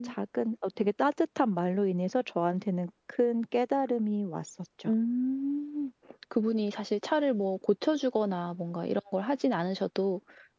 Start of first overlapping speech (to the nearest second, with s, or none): none